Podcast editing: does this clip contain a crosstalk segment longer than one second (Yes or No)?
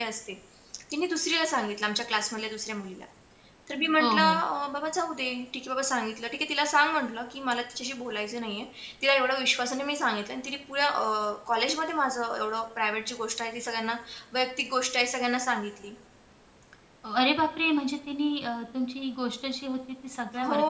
No